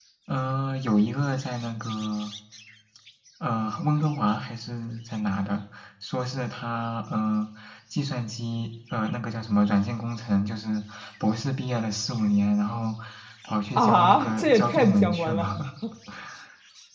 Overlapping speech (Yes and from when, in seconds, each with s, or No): Yes, from 13.8 s